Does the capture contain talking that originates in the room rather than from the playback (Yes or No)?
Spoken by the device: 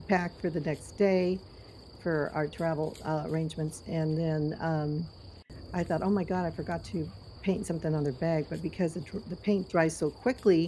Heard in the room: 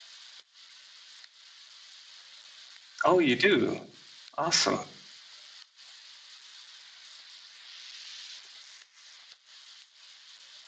Yes